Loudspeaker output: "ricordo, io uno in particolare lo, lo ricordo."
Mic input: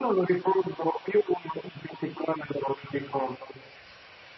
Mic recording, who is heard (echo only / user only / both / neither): echo only